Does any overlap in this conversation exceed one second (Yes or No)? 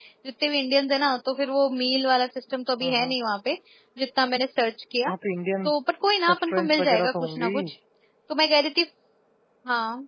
Yes